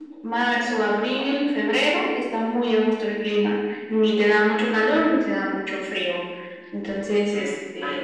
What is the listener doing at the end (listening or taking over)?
taking over